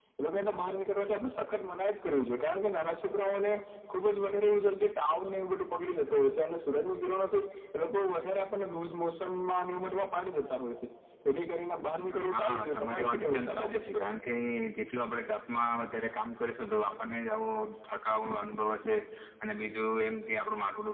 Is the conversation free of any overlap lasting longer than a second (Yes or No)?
No